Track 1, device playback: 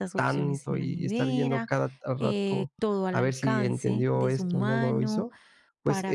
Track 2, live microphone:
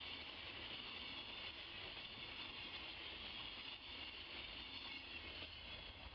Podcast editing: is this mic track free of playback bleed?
Yes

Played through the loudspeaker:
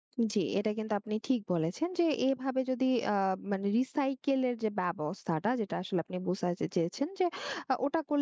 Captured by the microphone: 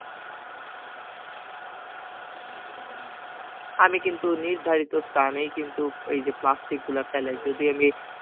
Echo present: No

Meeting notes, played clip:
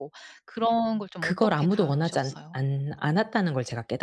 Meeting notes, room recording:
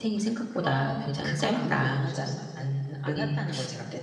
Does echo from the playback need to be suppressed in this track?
Yes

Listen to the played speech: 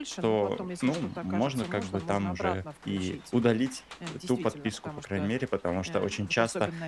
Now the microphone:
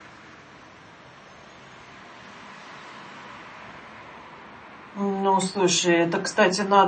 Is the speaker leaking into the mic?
No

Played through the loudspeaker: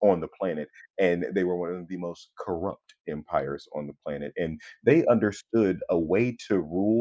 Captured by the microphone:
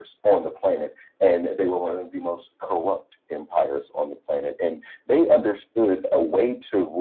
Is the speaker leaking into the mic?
Yes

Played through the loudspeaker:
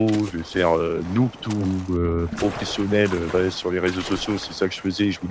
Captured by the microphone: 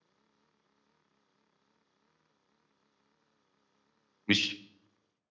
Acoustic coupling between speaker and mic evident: No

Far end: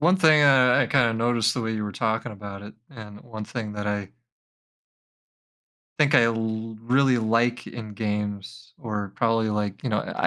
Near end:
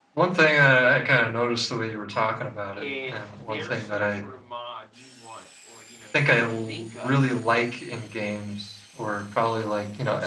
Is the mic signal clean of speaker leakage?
No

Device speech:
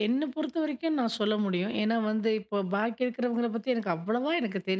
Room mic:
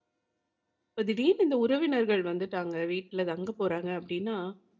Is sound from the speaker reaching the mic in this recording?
No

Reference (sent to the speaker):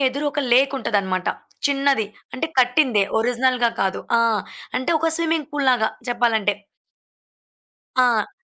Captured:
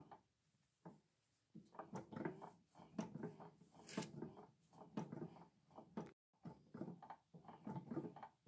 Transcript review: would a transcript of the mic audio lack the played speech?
Yes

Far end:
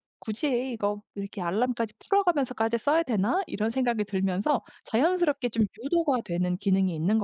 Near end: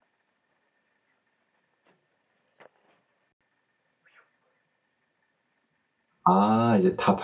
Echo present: No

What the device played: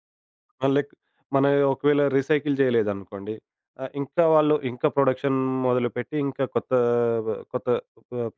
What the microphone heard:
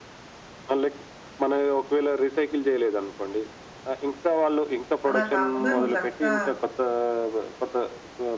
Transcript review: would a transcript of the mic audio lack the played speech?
No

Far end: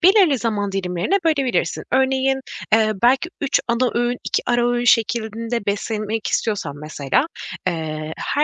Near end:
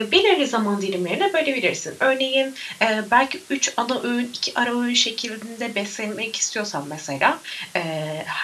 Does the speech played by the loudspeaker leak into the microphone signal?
Yes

